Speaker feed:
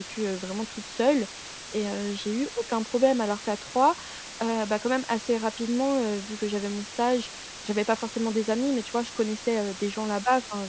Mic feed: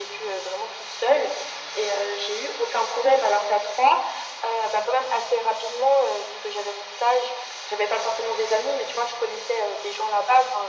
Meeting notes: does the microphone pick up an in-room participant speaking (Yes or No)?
No